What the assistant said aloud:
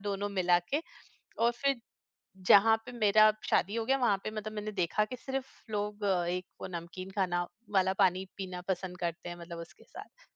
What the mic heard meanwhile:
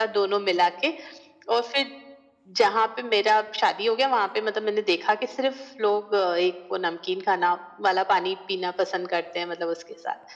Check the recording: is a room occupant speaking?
No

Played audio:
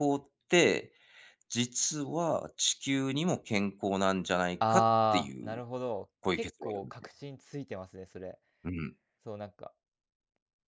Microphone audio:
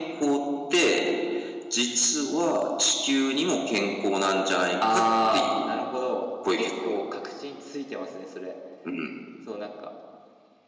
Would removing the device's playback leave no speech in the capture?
Yes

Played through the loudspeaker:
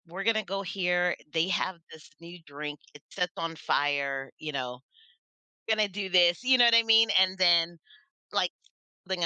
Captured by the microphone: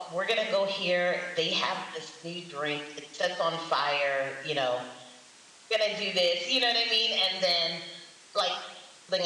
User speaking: No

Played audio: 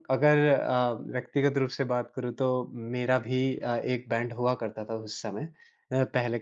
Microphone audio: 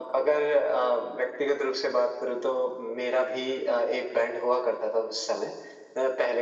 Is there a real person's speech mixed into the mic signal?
No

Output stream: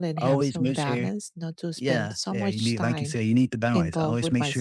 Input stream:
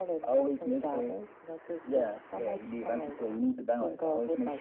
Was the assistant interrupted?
No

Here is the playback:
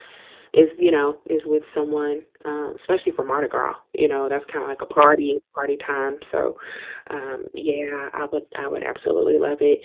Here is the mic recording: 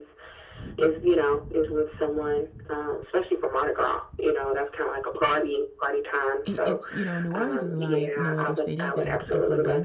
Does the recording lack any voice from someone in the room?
No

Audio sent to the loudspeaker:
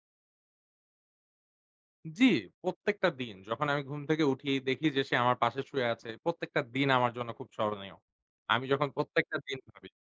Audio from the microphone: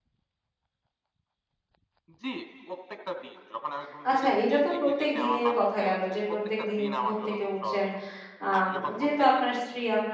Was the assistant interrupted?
Yes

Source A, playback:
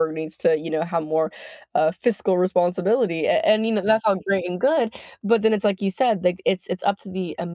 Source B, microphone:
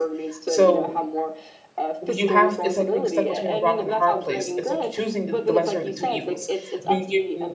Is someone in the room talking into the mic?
Yes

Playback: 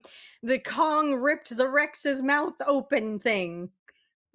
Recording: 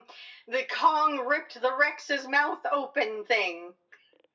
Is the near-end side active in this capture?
No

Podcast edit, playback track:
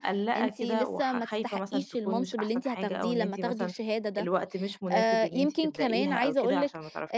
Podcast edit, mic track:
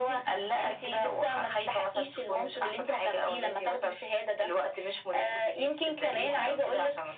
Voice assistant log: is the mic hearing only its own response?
Yes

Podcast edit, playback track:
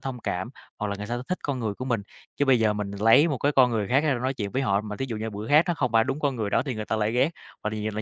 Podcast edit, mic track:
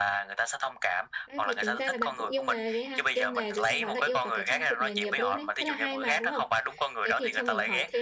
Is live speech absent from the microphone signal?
No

